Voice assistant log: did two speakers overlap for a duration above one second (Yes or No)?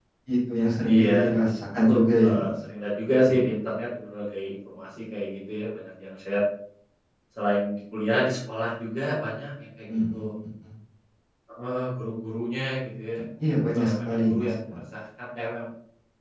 Yes